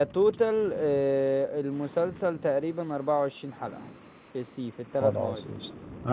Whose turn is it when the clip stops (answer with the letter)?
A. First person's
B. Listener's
B